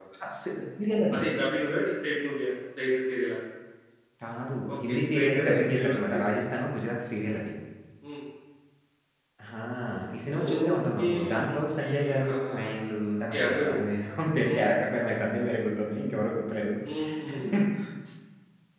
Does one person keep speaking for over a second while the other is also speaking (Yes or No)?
Yes